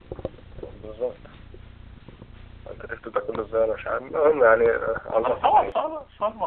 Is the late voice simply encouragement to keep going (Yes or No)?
No